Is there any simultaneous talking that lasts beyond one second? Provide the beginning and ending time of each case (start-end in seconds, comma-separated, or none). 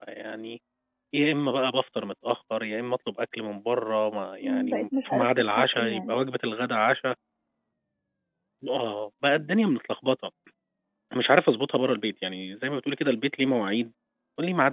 4.4-6.1